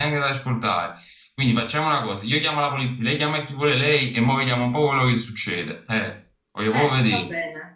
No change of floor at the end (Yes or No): No